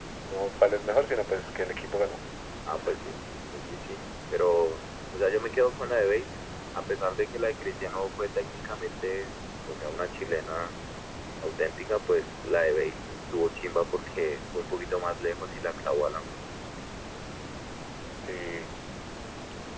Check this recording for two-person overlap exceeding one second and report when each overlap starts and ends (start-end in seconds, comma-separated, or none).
none